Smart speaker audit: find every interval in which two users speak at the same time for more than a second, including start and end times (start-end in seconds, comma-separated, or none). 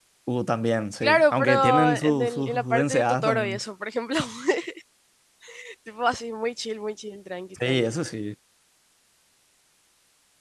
1.0-3.6